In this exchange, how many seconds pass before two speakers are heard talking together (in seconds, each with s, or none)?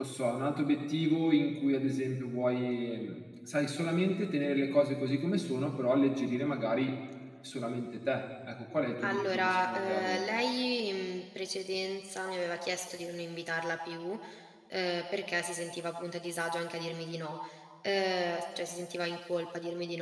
9.0 s